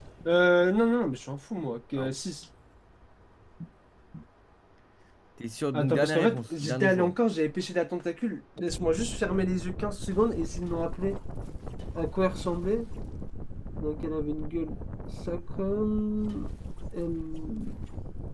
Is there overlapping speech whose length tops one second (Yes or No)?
Yes